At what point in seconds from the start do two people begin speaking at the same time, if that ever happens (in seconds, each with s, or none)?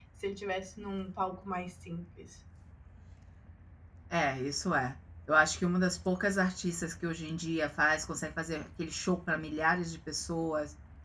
none